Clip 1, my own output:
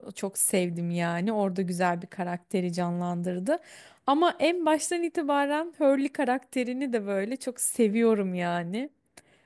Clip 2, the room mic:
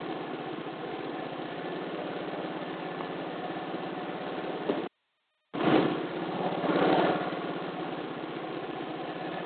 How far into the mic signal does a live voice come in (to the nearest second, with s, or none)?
none